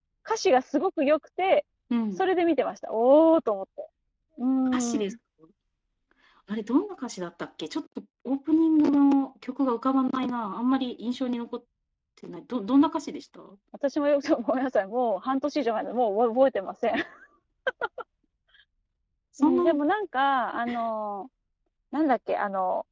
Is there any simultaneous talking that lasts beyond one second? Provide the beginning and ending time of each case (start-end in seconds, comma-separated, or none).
none